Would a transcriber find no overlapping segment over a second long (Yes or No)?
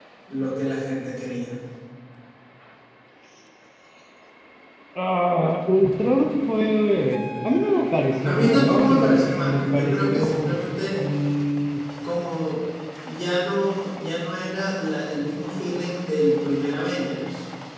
No